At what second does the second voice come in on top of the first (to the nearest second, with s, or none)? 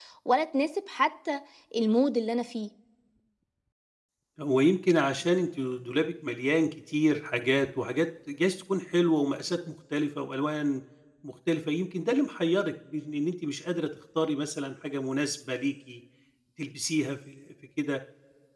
none